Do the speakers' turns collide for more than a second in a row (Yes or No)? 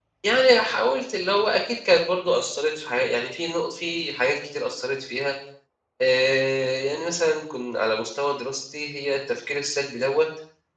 No